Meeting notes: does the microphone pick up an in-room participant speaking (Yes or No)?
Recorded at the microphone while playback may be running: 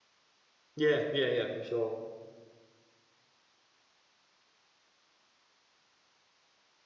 Yes